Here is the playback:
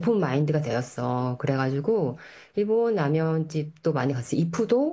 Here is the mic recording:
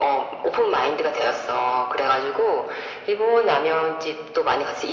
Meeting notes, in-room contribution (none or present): none